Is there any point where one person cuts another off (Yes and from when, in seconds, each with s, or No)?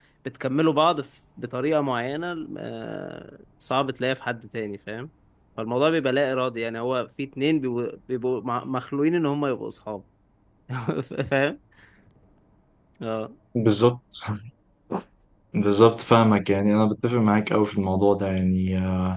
No